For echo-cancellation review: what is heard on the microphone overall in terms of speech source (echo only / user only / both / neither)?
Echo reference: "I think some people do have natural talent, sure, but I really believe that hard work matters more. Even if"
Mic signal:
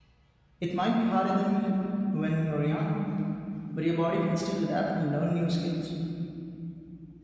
user only